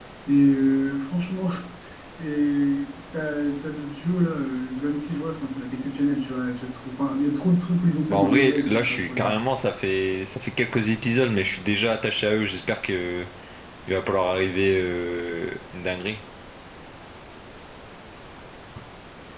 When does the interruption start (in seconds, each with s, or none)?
8.1 s